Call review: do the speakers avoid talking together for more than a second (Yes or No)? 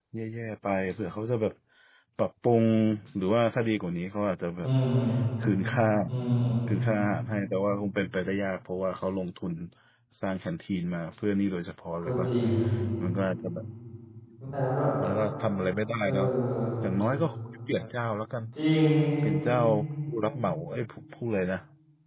Yes